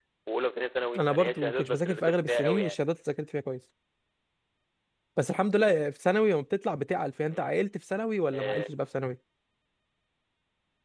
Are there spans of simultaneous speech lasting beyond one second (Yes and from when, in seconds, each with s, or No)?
Yes, from 1.0 s